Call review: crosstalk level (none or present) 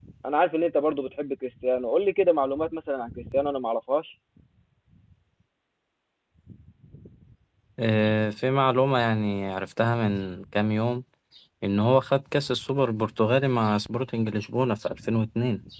none